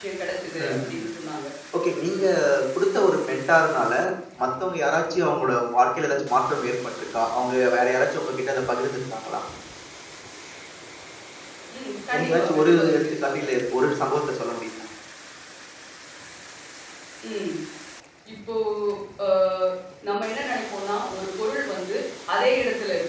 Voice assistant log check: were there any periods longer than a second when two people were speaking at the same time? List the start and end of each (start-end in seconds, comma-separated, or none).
12.2-13.4